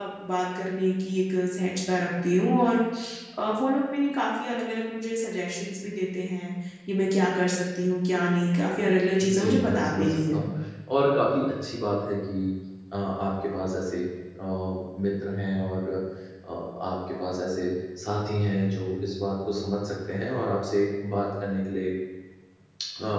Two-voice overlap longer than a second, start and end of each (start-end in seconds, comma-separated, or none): 9.2-10.4